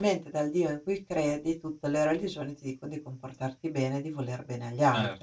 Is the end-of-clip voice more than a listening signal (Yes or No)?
Yes